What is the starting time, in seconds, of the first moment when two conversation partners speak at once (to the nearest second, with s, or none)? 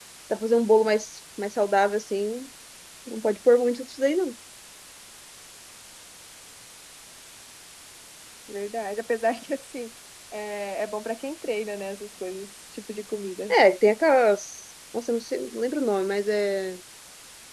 none